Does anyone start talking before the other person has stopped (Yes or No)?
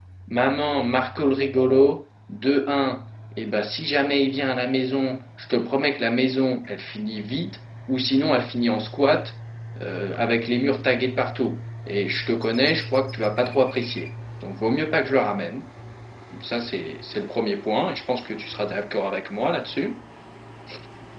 No